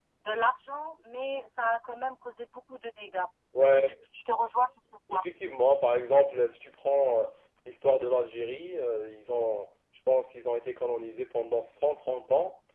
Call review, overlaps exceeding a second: none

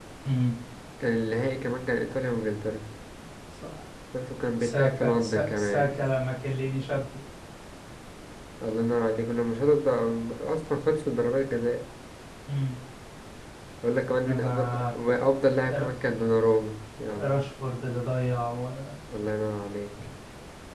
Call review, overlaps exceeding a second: present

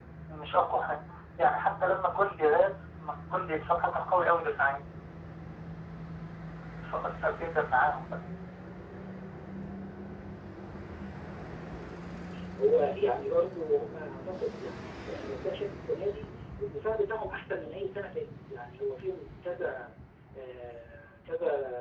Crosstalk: none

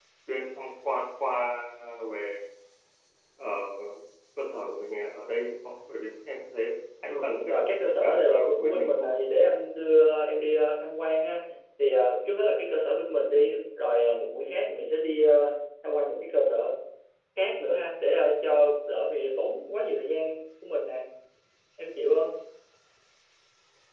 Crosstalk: present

